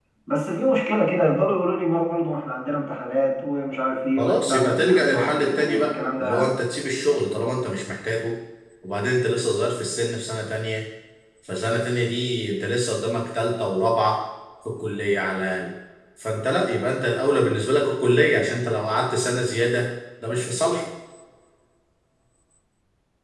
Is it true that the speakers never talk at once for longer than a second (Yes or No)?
No